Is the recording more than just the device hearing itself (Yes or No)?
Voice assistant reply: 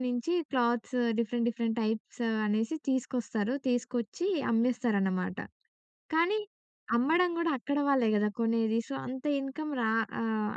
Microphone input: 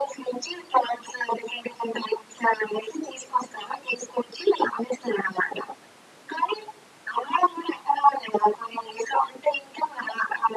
No